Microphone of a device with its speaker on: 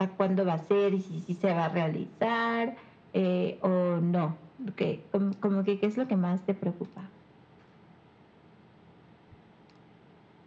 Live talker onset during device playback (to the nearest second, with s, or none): none